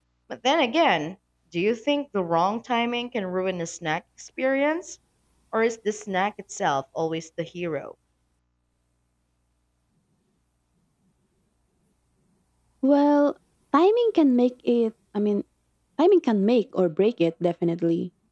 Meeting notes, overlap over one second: none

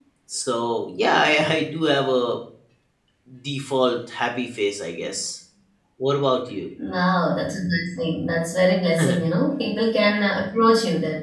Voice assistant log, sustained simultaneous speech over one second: none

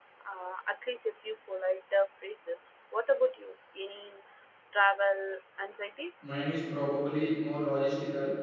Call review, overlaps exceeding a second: none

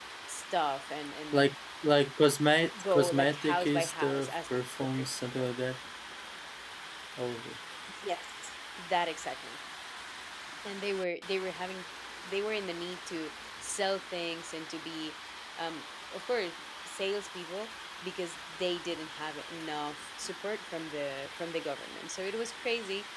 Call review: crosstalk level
present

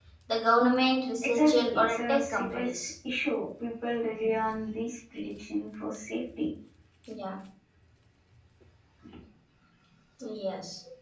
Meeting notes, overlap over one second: present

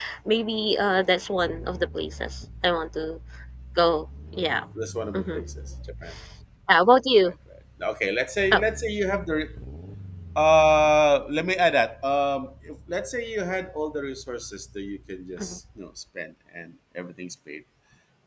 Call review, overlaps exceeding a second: none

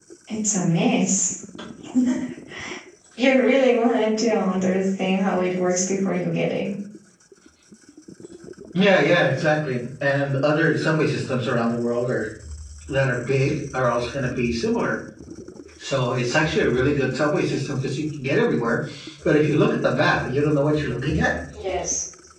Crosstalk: none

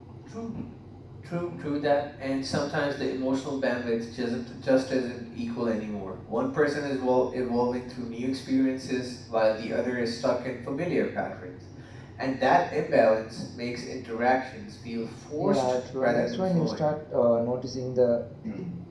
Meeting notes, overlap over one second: present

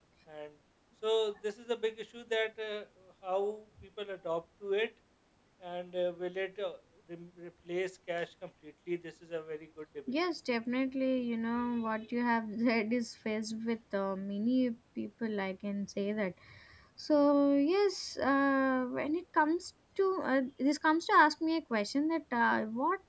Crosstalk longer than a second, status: none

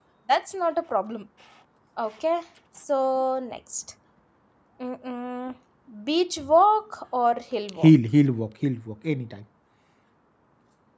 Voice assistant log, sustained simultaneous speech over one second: none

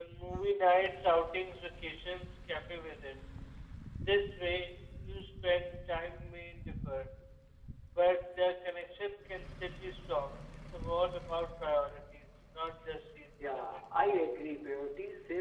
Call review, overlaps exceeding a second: none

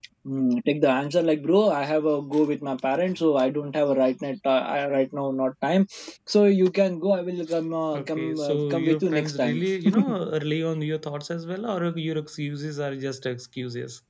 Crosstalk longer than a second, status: present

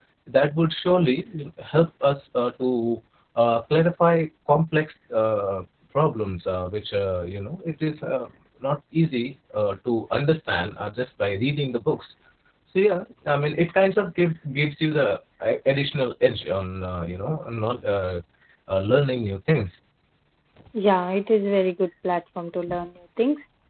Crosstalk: none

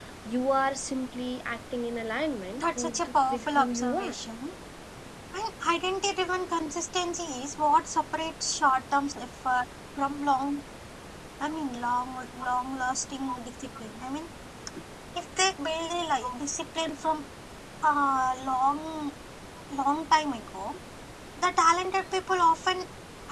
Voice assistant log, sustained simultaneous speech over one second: present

